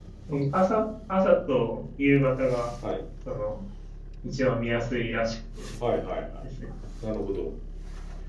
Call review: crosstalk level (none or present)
none